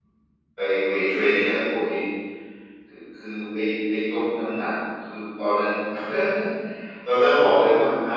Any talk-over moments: No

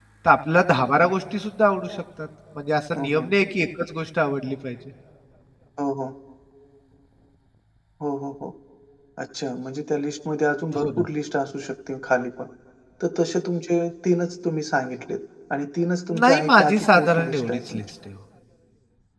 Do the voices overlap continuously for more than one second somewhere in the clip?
Yes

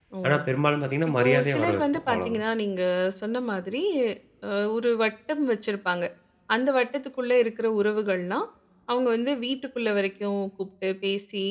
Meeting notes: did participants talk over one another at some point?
Yes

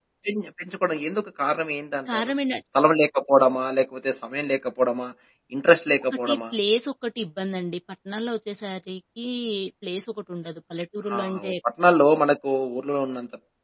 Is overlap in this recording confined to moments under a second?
Yes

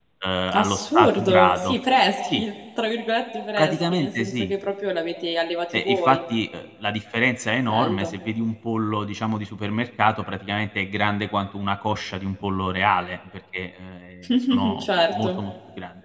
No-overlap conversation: No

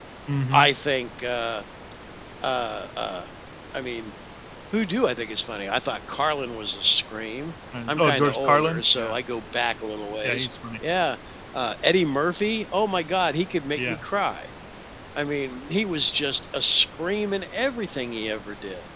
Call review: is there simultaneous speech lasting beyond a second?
Yes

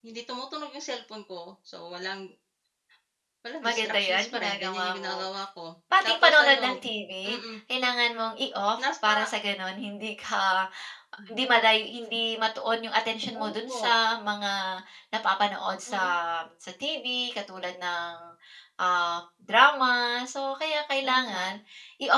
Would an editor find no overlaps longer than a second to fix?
No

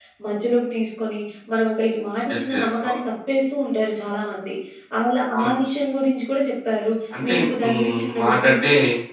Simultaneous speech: Yes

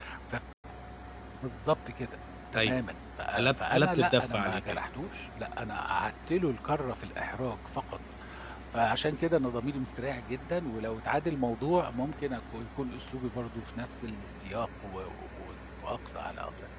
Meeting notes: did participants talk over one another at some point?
Yes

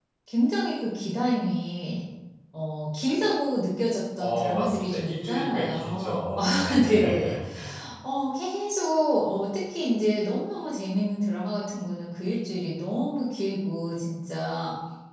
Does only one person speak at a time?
No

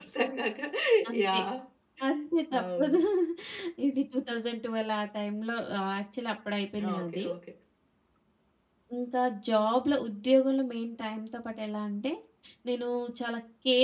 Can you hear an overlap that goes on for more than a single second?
No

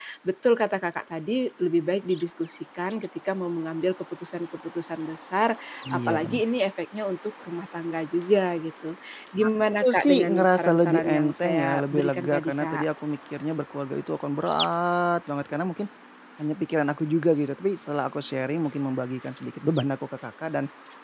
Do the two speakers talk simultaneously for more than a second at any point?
Yes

